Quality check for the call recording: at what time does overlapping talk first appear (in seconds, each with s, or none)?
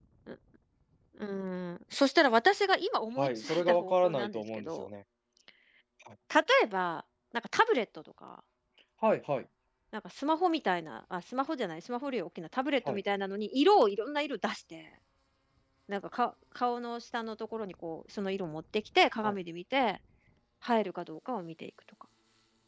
3.2 s